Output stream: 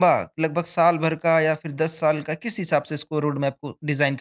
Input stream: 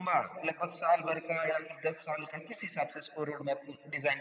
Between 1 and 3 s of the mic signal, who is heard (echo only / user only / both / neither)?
echo only